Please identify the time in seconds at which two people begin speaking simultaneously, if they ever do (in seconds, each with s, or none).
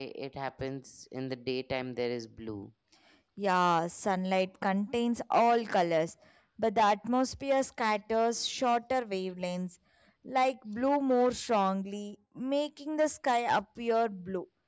none